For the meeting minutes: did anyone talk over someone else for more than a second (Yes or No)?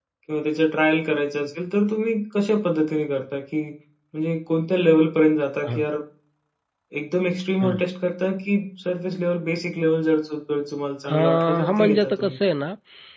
Yes